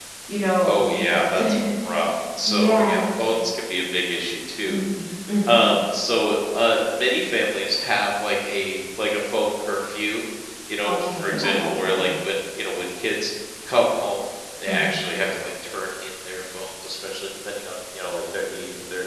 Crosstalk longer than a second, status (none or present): present